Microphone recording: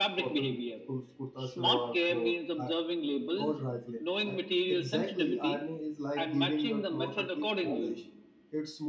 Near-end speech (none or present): present